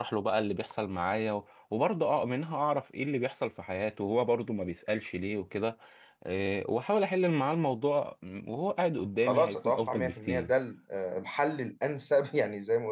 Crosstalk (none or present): present